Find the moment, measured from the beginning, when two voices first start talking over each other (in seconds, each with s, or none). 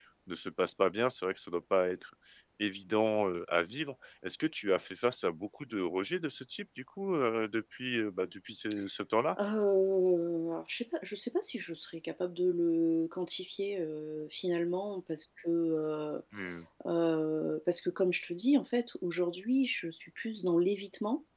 none